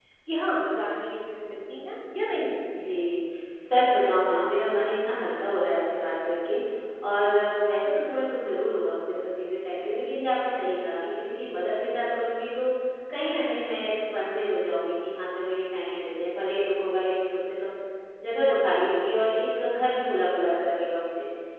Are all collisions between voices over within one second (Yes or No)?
Yes